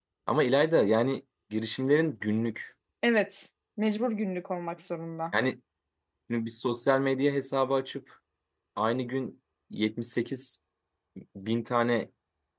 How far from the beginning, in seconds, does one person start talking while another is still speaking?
none

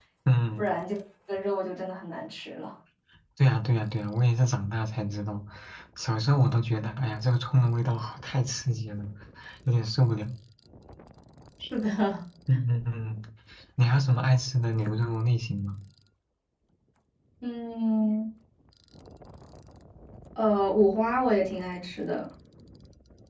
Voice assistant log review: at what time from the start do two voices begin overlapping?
none

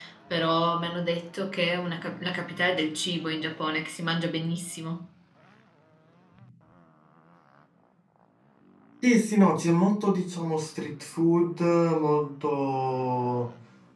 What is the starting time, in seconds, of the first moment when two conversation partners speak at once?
none

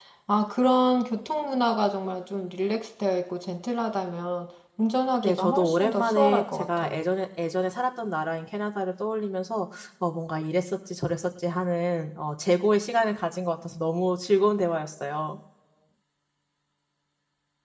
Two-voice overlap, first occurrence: 5.2 s

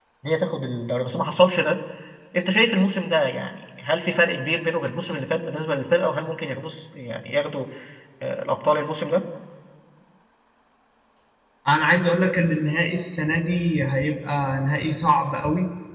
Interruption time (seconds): none

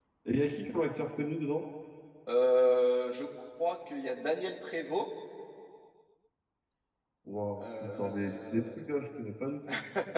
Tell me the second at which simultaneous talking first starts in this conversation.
7.6 s

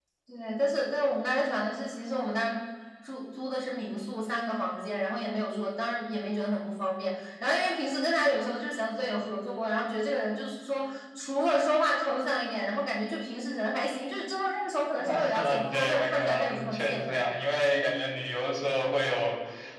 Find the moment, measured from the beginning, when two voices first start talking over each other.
15.0 s

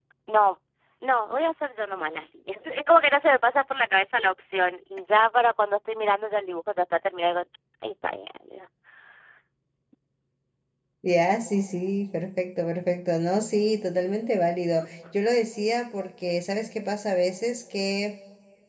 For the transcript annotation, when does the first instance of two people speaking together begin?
none

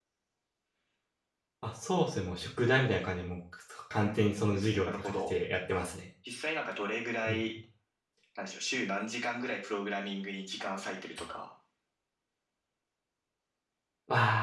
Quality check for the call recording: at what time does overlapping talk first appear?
4.0 s

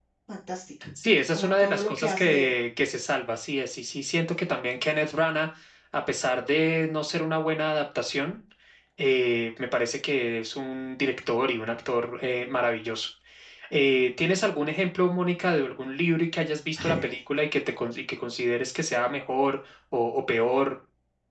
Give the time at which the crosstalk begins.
1.3 s

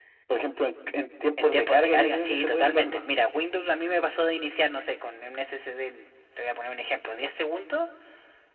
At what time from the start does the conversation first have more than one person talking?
1.4 s

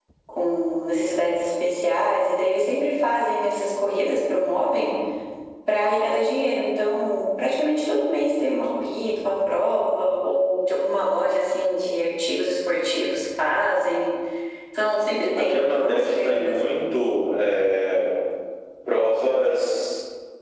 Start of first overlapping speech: 15.4 s

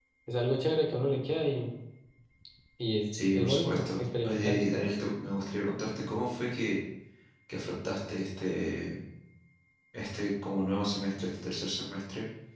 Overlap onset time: 3.3 s

